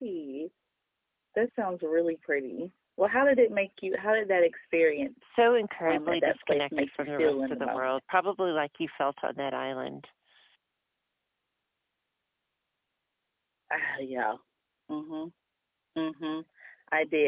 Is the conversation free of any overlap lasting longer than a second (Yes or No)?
No